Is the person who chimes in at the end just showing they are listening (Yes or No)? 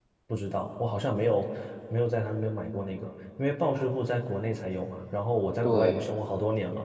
Yes